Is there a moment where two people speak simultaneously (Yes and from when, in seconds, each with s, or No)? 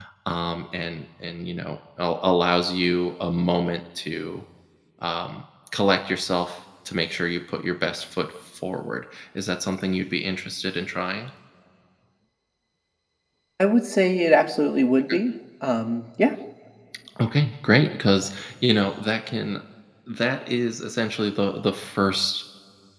No